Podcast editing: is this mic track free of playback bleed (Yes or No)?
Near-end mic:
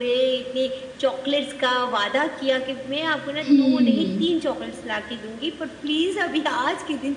No